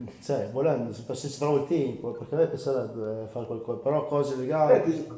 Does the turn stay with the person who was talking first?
No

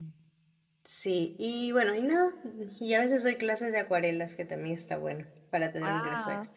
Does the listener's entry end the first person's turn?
Yes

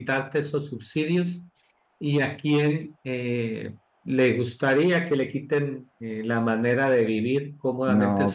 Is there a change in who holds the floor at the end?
No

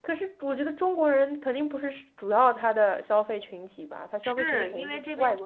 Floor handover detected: Yes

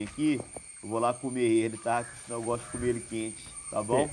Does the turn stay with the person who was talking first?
No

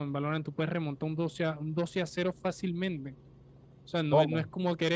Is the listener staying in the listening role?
Yes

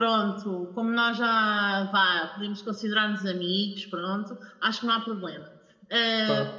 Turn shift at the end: No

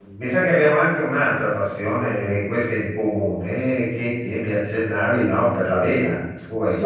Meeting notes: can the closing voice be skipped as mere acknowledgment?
No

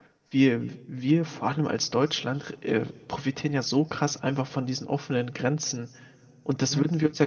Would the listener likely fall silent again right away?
Yes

